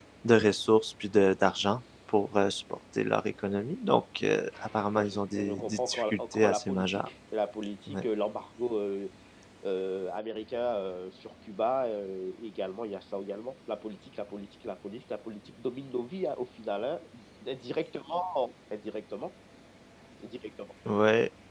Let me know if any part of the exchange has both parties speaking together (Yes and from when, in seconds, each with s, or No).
Yes, from 4.9 s